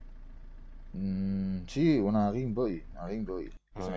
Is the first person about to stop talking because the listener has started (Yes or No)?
No